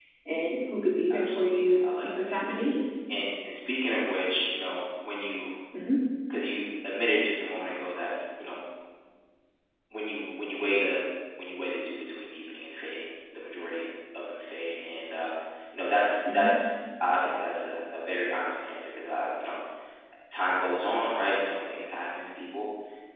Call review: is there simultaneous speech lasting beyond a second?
Yes, from 1.1 s

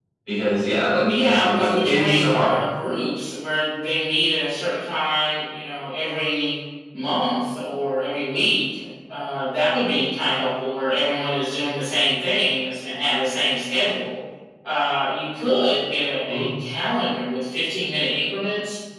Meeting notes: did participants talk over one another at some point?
Yes, from 1.0 s

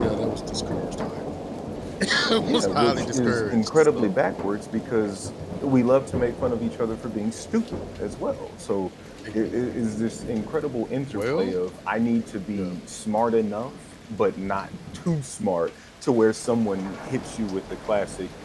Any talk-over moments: Yes, from 2.5 s

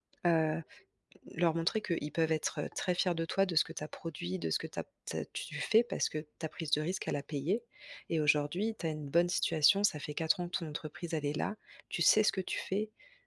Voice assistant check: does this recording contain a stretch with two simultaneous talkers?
No

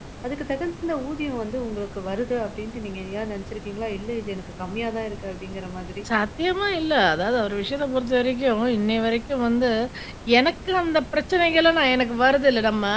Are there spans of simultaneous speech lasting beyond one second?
No

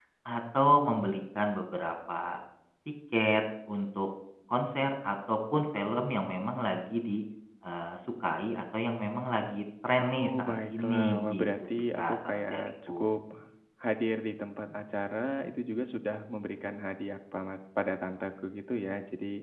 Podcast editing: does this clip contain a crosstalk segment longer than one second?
Yes, from 10.0 s

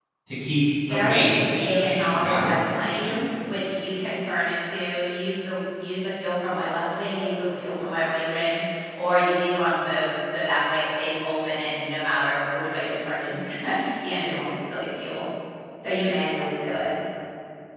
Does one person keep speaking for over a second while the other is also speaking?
Yes, from 0.9 s

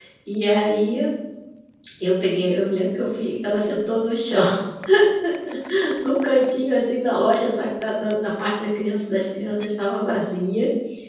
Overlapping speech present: No

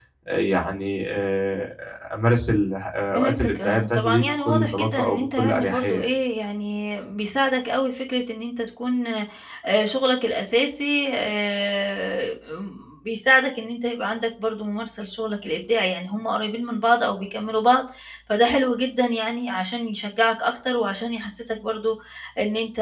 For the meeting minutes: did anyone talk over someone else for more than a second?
Yes, from 3.2 s

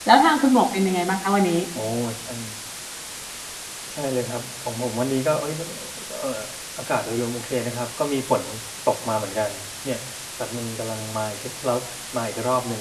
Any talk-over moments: No

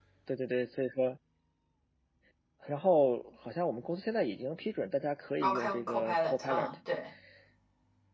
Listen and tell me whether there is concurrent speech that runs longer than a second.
Yes, from 5.4 s

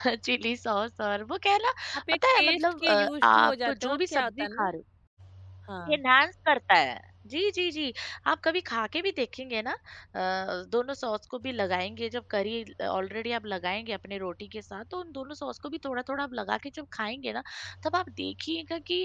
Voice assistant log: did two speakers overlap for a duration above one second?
Yes, from 2.1 s

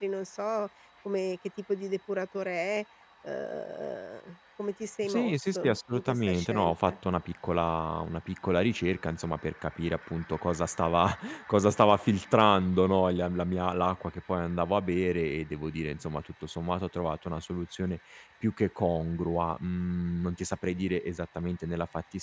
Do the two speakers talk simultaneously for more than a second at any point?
Yes, from 5.0 s

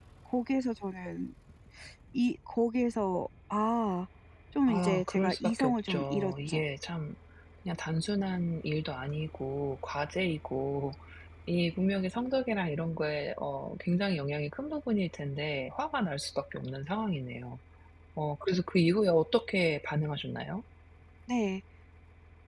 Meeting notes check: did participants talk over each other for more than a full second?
Yes, from 4.7 s

